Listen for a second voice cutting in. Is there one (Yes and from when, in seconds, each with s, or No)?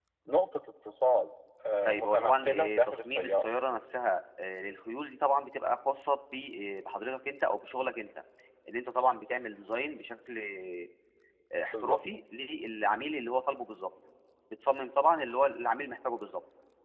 Yes, from 1.8 s